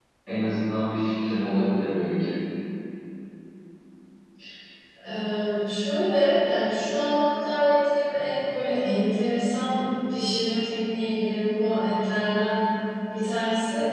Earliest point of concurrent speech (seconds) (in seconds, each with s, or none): none